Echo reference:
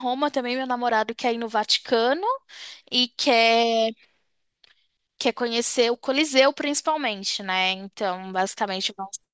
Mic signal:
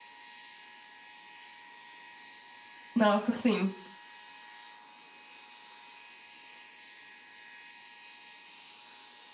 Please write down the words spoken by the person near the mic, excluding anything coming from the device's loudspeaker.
Nossa, sim.

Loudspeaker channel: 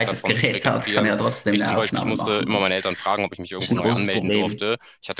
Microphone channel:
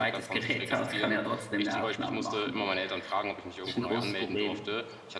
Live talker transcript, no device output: none

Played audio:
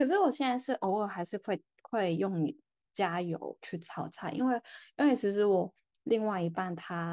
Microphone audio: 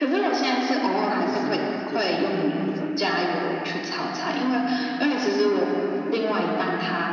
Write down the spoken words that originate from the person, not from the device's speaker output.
那你是用就是不粘锅在

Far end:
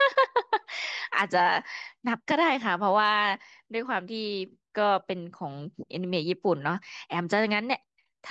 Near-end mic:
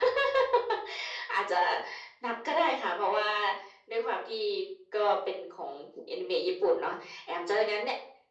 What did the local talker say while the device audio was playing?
none

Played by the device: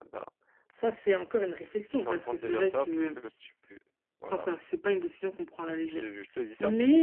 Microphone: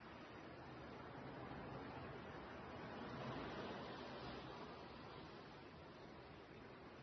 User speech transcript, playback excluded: none

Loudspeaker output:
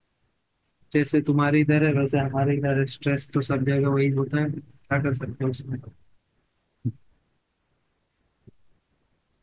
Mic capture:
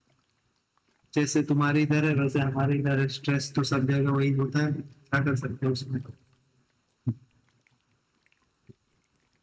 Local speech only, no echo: none

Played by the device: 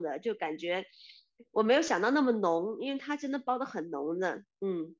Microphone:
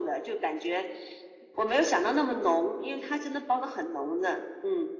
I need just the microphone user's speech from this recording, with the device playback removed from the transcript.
none

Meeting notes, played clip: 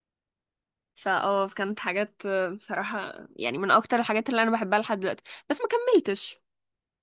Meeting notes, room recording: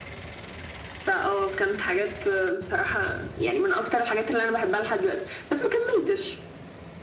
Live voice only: none

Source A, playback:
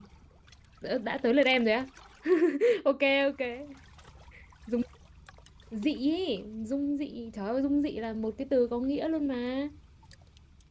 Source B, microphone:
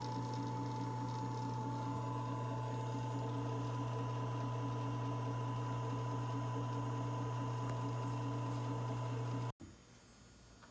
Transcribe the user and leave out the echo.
none

